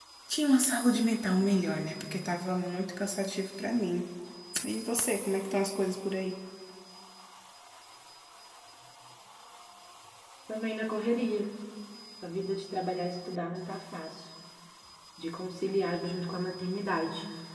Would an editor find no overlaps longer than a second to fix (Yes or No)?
Yes